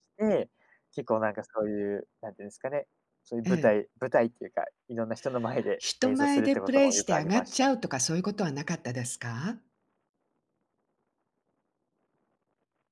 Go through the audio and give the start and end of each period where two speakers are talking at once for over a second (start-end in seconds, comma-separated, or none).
6.0-7.5